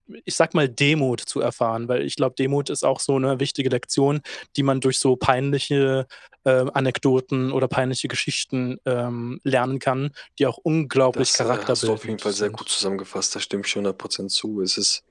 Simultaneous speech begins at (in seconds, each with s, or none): 11.1 s